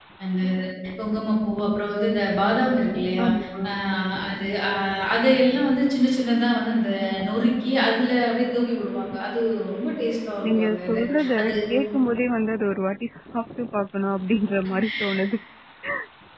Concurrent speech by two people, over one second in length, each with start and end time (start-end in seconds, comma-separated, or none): none